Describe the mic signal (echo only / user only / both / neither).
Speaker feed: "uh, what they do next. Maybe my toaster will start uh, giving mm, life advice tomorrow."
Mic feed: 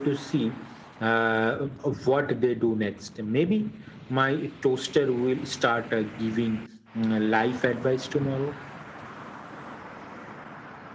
echo only